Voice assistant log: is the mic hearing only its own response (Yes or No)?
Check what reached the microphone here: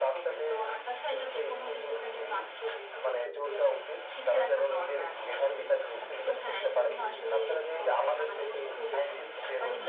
No